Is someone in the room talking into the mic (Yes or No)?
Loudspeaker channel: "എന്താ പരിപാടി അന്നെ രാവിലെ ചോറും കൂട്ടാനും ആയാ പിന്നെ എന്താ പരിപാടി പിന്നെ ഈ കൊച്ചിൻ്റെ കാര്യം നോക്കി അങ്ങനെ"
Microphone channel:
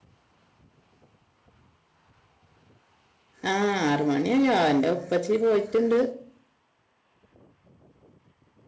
Yes